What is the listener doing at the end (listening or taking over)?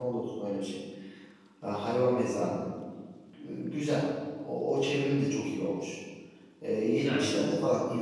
listening